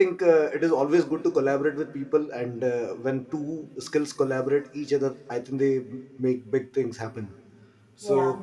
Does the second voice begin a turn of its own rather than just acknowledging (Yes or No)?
No